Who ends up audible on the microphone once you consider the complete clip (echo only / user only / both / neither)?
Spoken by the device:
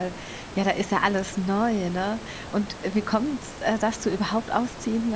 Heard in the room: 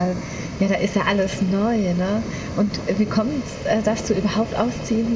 echo only